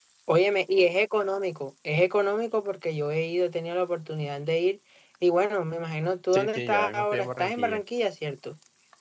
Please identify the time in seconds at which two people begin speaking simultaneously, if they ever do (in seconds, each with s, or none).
6.3 s